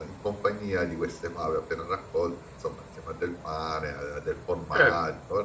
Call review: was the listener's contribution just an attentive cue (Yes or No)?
No